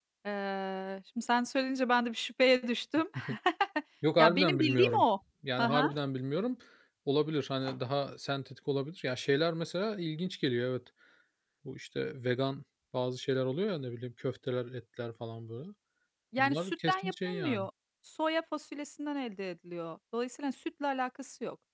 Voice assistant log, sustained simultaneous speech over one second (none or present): present